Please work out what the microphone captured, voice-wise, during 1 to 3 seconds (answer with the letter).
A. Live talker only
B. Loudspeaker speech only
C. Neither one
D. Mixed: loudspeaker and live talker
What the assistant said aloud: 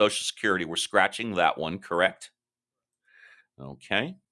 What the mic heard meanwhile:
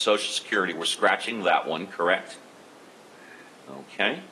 B